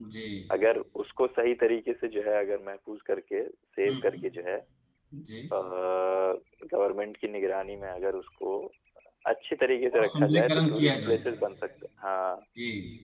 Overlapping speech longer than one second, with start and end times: 9.9-11.2

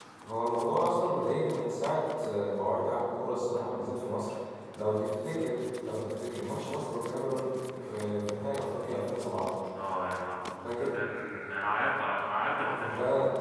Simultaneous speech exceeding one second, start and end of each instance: none

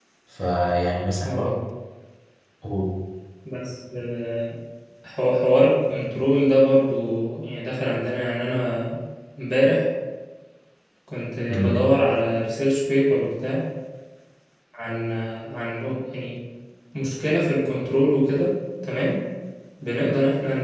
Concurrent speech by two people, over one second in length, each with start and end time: none

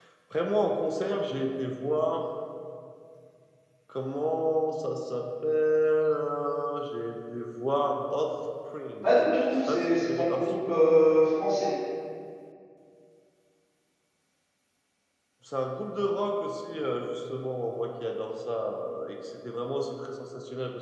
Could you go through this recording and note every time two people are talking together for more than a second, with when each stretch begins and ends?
9.0-11.0

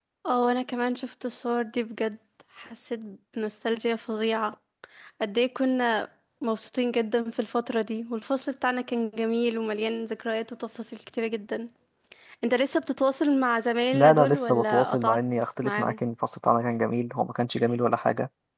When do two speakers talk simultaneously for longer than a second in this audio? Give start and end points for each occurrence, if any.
13.9-15.2

